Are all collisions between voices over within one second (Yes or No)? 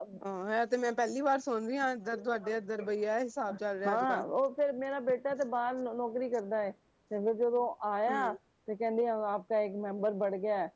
Yes